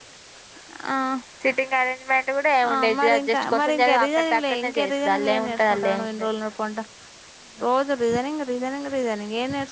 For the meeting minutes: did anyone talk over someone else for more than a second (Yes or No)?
Yes